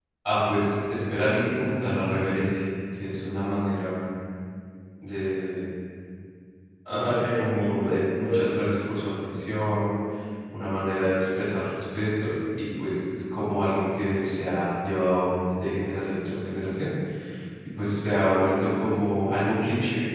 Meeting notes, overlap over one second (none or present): present